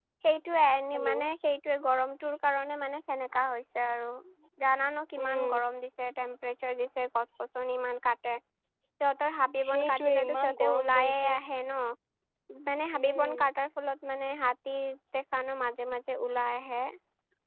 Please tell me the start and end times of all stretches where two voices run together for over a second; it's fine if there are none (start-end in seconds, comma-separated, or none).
9.7-11.3